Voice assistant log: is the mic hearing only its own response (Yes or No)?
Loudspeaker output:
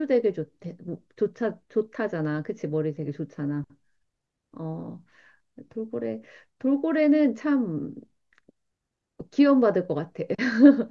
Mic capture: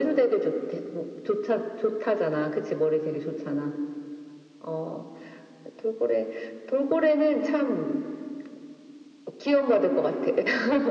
Yes